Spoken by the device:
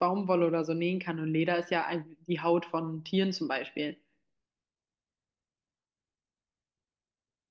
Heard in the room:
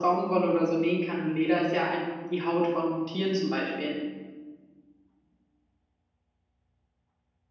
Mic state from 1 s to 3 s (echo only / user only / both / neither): echo only